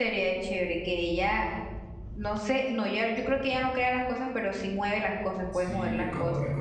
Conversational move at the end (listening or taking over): taking over